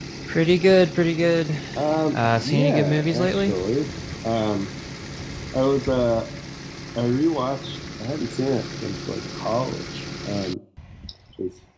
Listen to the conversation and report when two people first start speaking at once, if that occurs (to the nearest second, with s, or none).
2 s